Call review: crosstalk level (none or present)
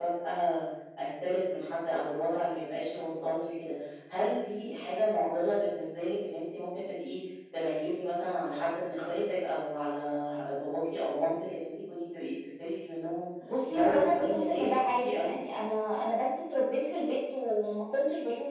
present